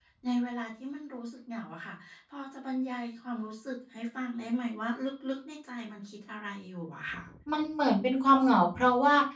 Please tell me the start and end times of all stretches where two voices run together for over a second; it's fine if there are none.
none

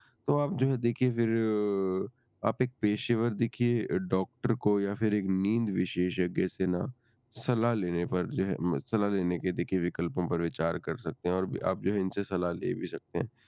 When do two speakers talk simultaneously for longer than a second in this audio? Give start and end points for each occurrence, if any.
none

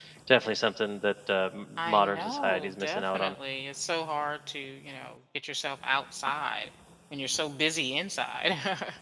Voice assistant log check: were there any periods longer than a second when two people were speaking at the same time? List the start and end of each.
1.9-3.4

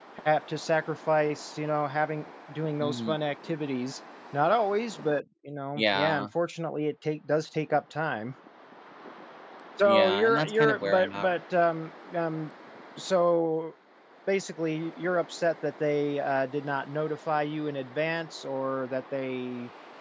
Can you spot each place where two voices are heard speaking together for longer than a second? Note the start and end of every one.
9.8-11.3

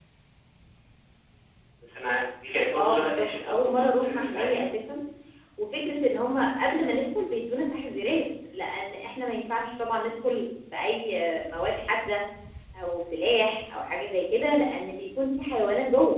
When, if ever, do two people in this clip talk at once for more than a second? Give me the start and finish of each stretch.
2.8-4.6

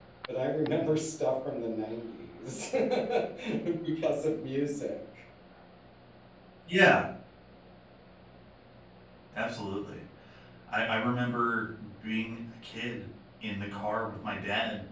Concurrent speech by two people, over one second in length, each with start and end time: none

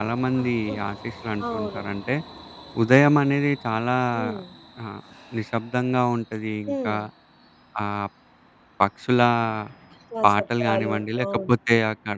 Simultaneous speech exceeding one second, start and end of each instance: 10.2-11.5

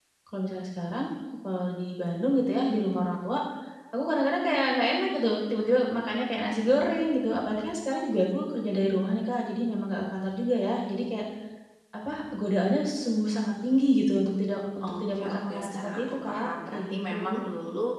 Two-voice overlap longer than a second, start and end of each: 14.8-17.4

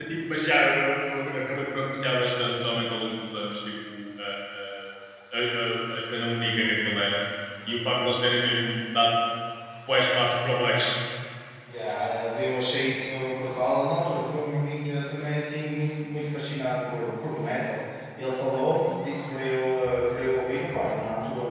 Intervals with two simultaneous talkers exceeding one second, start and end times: none

